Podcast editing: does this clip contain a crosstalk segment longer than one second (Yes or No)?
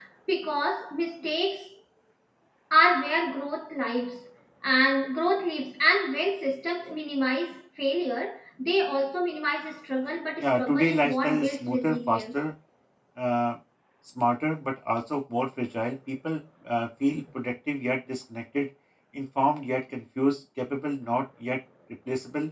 Yes